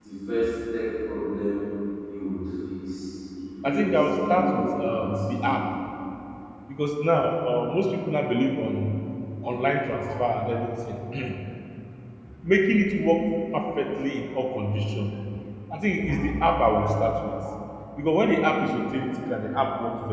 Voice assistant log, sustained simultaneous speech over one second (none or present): present